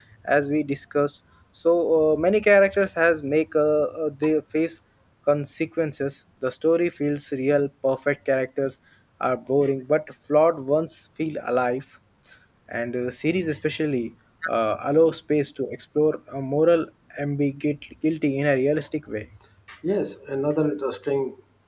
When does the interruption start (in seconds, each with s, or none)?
none